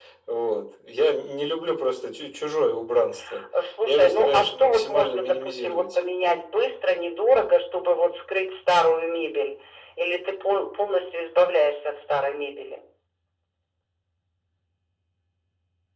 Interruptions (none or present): present